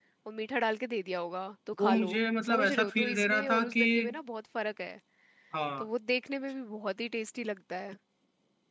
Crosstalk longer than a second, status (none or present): present